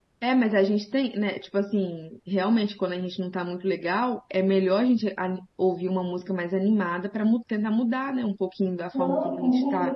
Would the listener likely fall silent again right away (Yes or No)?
No